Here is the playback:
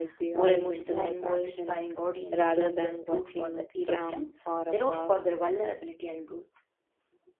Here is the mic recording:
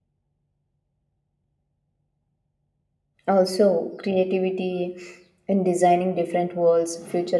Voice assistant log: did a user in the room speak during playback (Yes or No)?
Yes